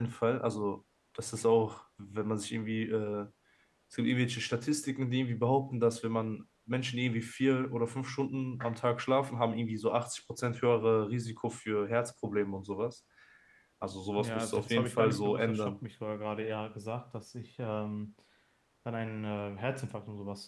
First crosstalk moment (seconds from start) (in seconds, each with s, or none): 14.2 s